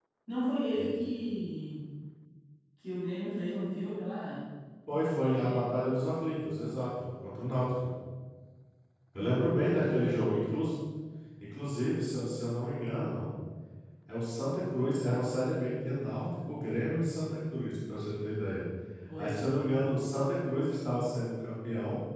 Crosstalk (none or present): present